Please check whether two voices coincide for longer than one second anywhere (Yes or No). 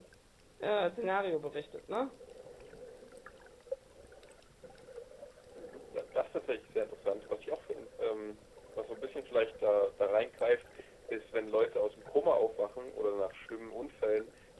No